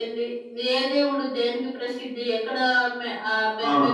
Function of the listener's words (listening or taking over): listening